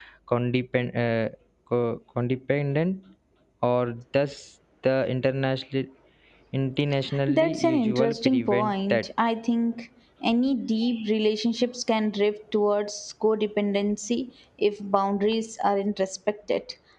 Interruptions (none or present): present